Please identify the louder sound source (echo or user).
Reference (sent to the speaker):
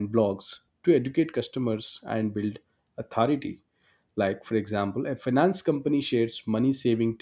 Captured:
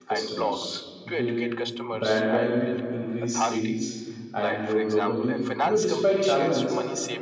user